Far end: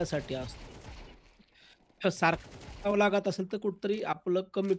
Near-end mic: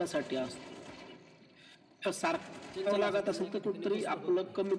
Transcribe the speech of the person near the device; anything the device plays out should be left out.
चंचल असतात, त्यांना एका ठिकाणी बसणं होत नाही.

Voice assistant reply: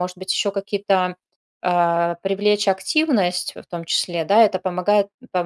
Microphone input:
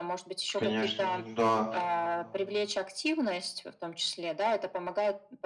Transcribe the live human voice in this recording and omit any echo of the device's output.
Конечно, да.

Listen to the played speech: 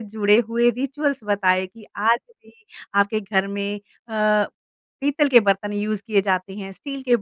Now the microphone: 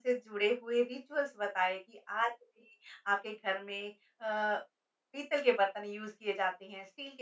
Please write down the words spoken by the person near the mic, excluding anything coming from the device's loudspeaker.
none

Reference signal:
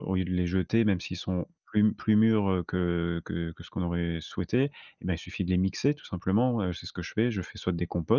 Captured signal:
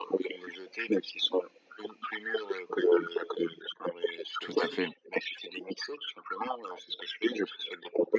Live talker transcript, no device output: Tout à fait.

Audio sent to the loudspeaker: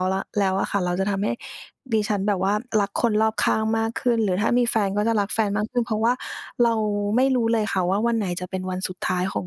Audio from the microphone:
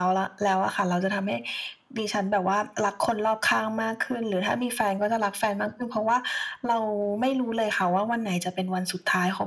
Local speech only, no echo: none

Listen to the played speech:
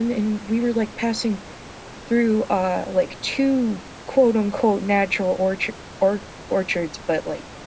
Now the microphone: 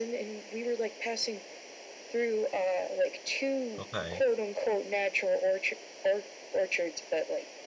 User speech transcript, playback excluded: Okay.

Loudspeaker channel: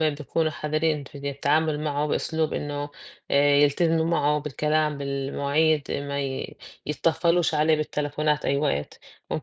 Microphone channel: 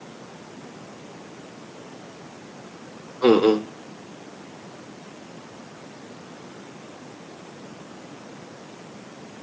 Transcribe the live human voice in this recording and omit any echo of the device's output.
إمم، إمم.

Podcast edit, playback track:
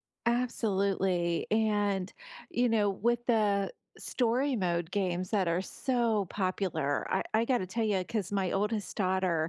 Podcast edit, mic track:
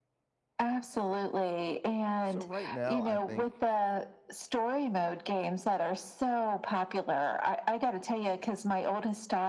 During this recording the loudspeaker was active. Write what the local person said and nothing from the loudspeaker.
so right now, I think

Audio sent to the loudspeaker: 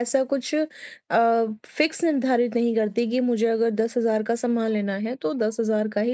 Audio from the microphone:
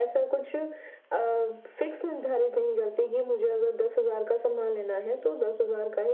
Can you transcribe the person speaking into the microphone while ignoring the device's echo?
none

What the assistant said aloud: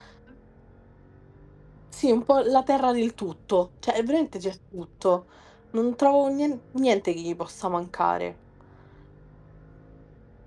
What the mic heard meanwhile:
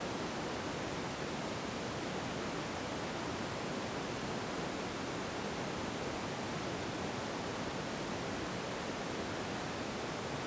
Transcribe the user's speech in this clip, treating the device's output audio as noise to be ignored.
none

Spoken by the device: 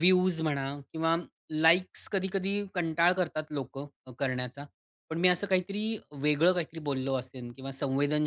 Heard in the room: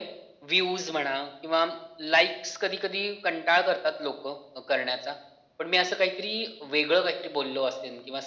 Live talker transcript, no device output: none

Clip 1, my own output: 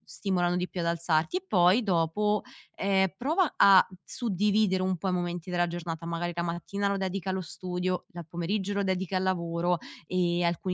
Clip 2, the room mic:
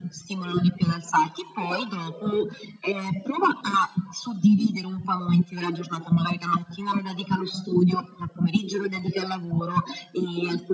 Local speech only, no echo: none

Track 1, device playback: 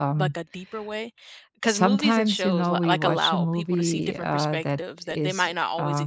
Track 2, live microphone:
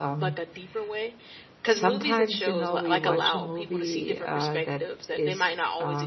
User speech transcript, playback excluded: none

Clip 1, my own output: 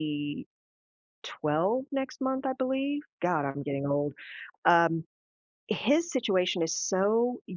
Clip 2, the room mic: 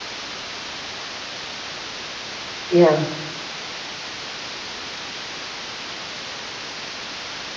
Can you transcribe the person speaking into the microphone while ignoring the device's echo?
Yeah.

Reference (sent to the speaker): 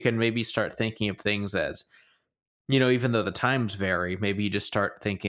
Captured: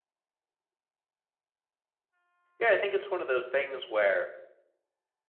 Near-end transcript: yeah, I think it's one of those things where

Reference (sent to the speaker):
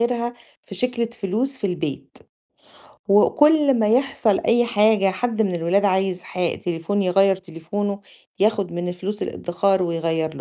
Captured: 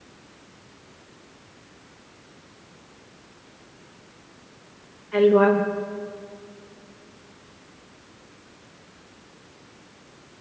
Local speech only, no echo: حلو أوي.

